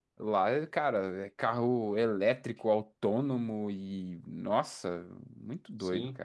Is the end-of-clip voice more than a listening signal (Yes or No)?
Yes